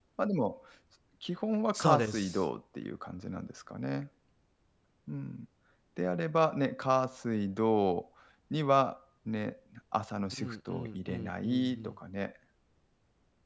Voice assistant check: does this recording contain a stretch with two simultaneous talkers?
Yes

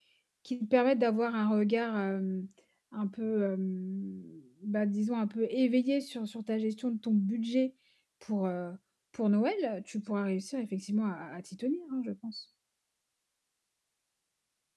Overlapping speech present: No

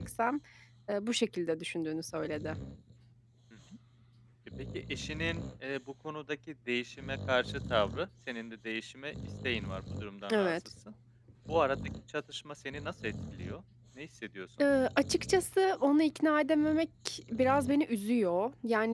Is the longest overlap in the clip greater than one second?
No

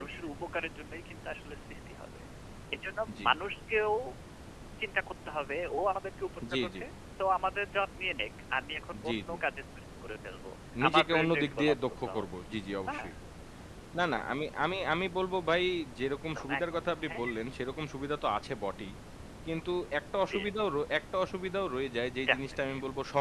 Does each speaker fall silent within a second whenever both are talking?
No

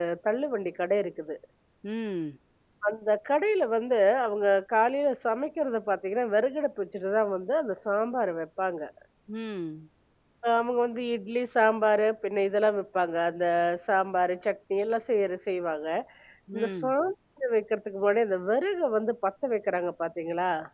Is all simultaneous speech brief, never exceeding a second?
Yes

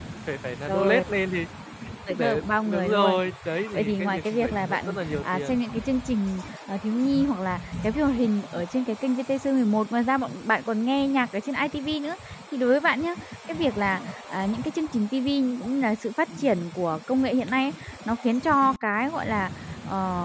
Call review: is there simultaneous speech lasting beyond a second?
Yes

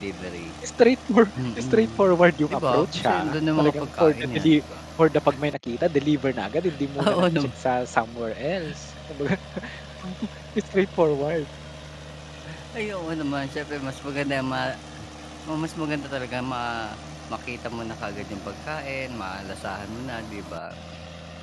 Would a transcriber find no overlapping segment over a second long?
No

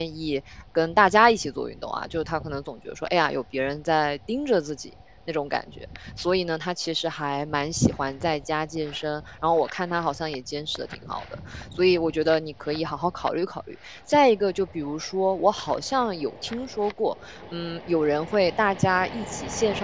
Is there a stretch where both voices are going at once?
No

